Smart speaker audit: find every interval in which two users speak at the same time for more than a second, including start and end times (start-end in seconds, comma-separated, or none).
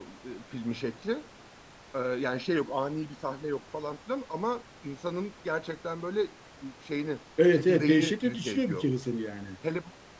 7.5-8.8